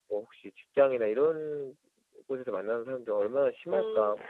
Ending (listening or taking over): taking over